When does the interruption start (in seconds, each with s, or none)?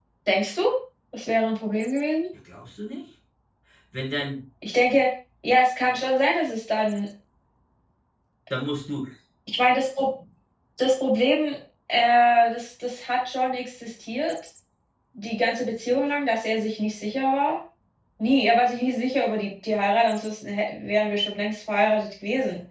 none